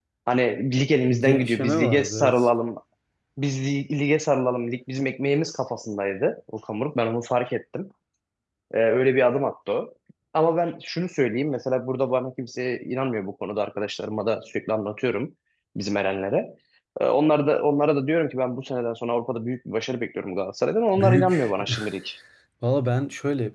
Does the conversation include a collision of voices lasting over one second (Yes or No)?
Yes